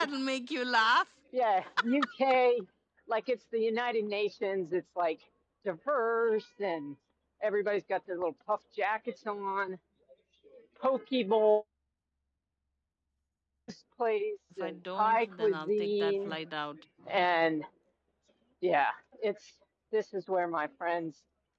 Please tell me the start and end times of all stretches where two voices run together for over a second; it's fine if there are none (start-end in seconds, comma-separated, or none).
14.6-16.4